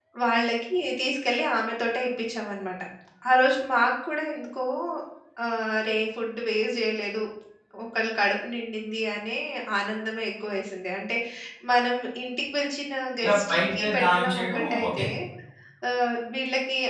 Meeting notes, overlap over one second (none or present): present